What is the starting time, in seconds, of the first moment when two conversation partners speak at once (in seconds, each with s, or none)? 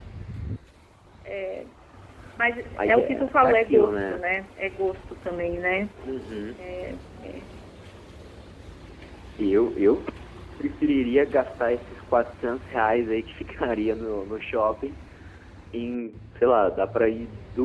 2.8 s